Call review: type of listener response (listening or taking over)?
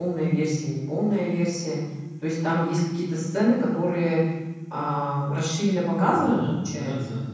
taking over